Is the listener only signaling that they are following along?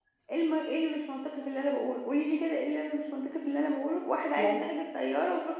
Yes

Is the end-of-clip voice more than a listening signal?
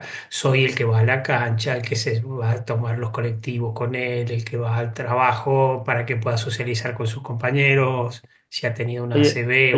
Yes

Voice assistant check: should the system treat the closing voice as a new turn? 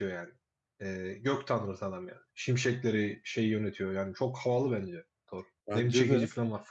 No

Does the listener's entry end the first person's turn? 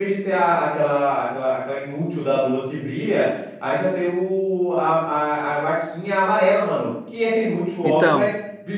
No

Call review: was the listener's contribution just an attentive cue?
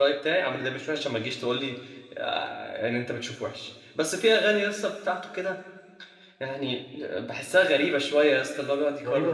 No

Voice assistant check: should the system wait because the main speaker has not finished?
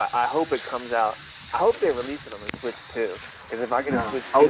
No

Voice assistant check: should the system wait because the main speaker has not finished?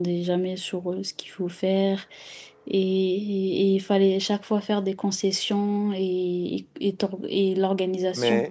No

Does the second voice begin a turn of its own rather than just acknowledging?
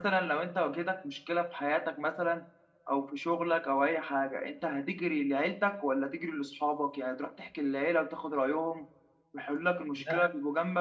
No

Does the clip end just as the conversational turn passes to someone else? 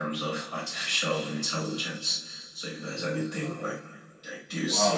Yes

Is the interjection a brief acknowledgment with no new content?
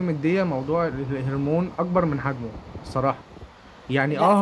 Yes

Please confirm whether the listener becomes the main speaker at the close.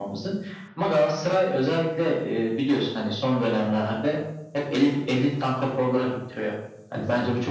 No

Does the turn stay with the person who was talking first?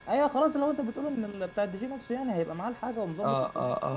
No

